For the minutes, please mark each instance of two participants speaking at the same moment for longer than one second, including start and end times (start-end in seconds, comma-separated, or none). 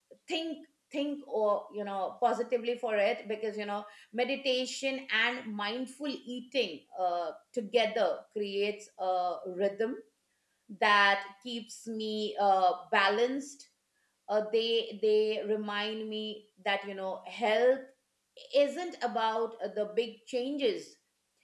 none